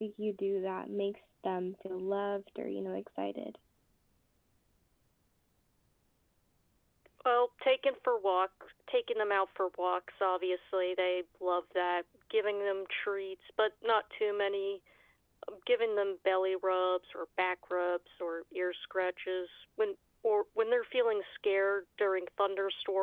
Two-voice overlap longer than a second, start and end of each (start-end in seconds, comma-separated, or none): none